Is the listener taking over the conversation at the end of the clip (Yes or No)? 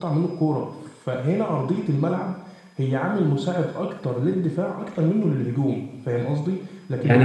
Yes